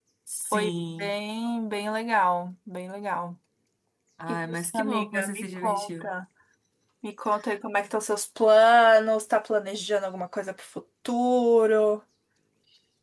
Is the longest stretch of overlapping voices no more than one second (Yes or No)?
No